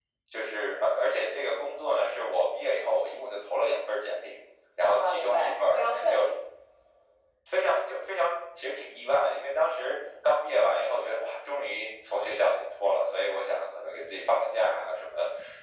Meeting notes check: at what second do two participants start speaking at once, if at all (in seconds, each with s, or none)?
4.9 s